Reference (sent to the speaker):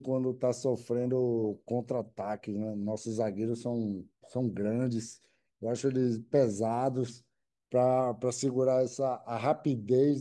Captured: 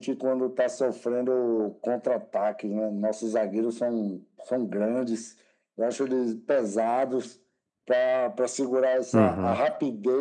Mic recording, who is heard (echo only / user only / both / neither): both